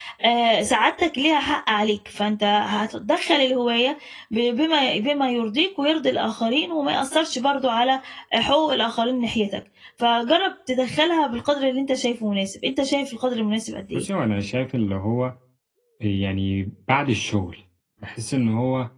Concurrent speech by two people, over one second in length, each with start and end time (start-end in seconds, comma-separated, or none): none